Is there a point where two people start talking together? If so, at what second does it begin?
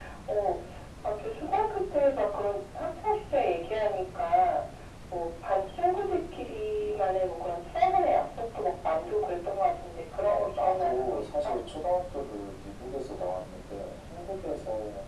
10.3 s

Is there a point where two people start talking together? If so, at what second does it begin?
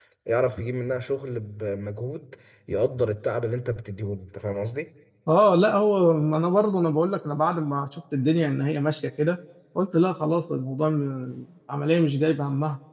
none

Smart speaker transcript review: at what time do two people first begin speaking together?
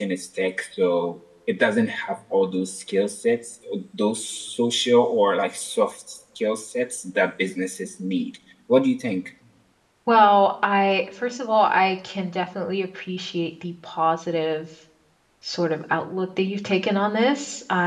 none

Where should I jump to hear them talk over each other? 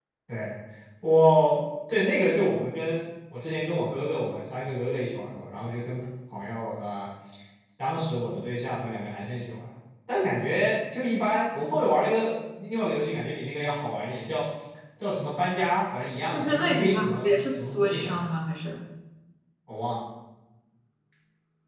16.3 s

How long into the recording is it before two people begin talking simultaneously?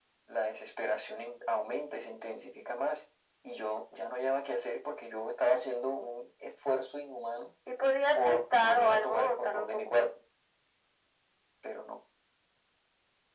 8.2 s

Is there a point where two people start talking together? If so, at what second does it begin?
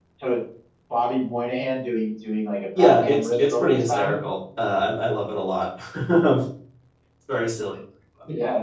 2.8 s

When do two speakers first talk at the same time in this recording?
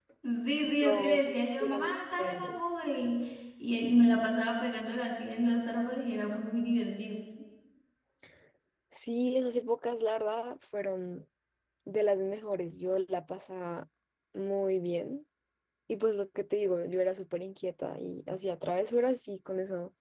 0.8 s

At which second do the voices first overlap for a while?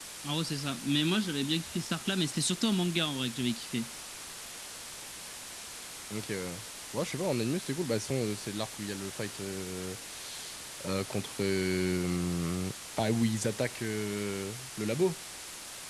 none

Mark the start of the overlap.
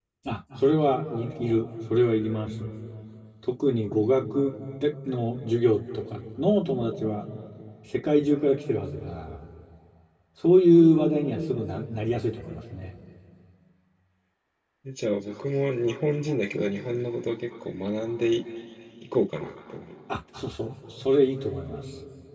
none

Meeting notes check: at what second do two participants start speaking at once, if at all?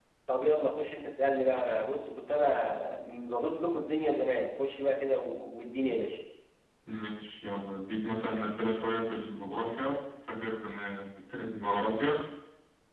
none

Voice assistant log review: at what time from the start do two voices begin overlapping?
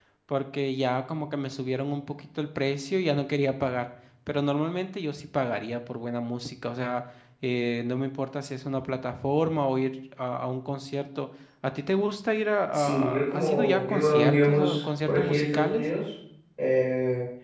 12.7 s

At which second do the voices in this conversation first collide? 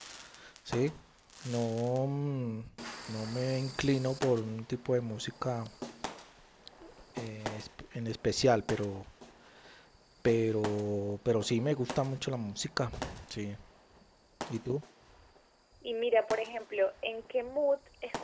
none

